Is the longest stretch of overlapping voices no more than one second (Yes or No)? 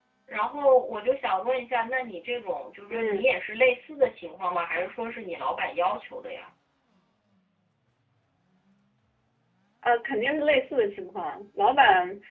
Yes